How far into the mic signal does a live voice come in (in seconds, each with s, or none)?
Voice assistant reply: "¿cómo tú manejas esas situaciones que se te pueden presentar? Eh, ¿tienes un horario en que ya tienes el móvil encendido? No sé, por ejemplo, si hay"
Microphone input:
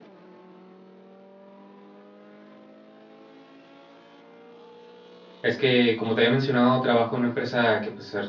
5.4 s